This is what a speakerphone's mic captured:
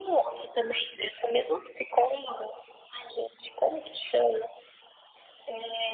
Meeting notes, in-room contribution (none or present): none